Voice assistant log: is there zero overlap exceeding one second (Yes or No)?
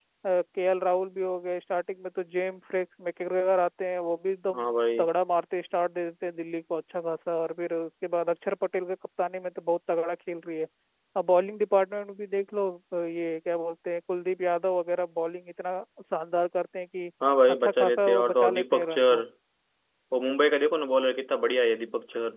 No